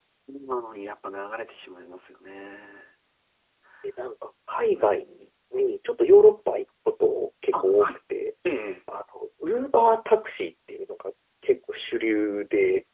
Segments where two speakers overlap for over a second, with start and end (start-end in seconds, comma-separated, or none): none